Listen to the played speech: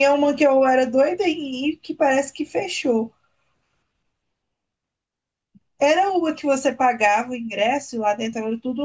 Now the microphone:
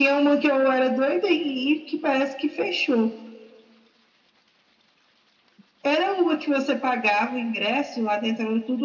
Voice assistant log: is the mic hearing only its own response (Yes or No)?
Yes